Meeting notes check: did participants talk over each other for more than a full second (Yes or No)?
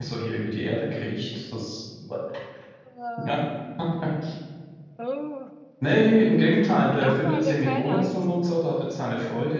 Yes